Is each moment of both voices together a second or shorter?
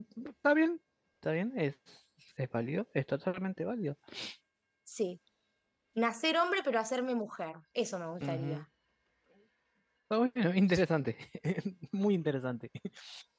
Yes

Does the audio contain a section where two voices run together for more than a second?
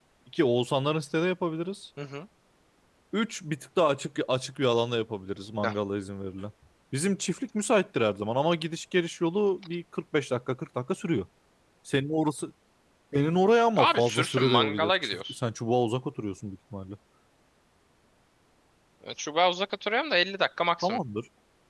Yes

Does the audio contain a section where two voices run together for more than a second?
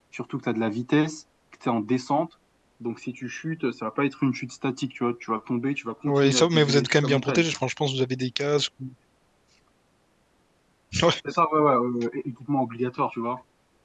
Yes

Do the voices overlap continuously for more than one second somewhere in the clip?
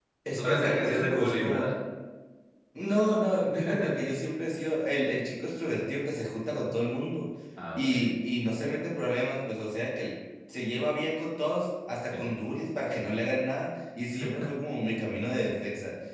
Yes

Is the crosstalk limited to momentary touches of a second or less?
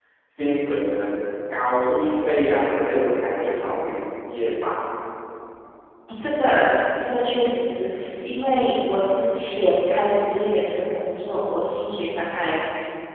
Yes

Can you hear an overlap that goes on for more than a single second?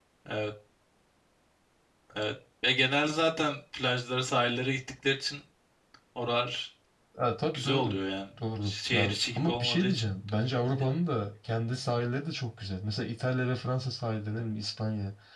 Yes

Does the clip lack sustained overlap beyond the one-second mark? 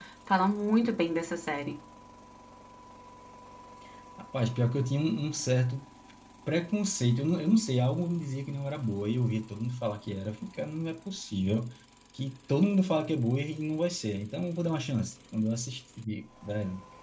Yes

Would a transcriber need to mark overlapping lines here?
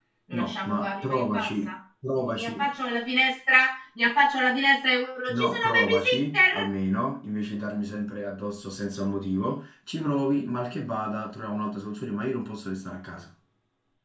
Yes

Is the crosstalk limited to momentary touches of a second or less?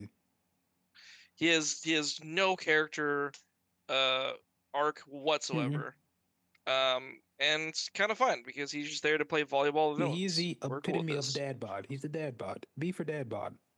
No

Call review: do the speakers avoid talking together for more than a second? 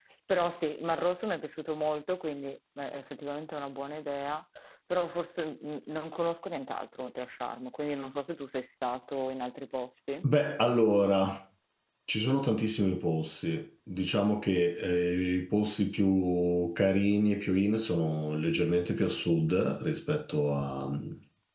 Yes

